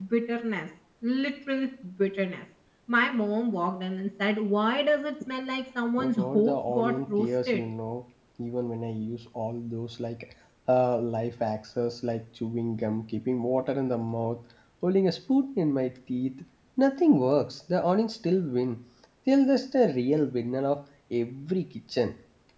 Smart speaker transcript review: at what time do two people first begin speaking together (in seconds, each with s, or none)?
6.0 s